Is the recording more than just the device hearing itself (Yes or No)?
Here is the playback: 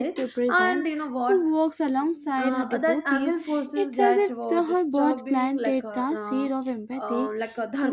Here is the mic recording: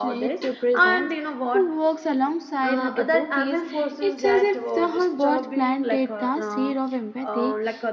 No